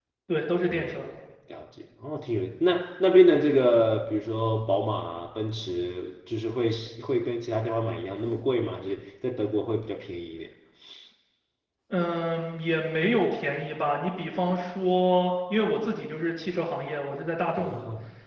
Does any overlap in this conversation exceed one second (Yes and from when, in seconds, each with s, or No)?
No